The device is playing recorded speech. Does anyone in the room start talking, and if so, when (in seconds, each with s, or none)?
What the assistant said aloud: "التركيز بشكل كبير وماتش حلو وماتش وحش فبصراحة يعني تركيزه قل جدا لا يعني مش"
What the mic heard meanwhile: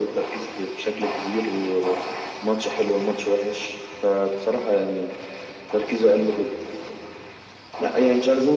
none